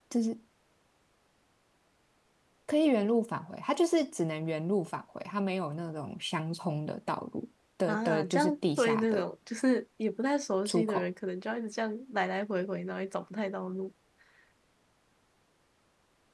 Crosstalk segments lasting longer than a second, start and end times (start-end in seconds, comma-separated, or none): 7.9-9.2